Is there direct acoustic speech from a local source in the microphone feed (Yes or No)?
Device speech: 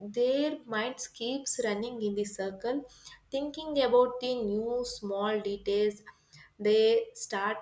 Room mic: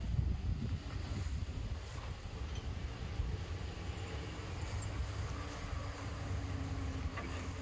No